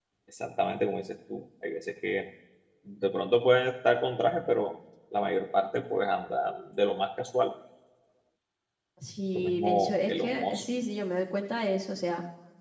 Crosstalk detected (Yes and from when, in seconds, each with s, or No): Yes, from 9.3 s